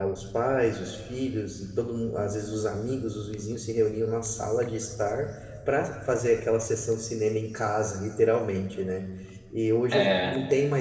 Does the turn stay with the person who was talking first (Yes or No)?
Yes